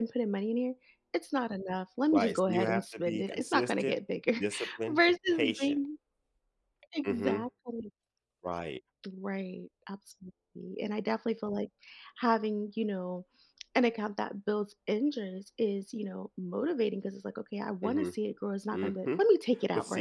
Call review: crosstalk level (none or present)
present